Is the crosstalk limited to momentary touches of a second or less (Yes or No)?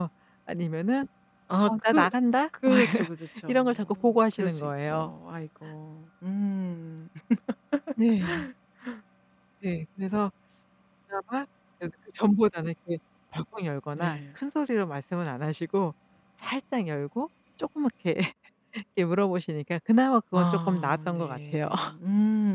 No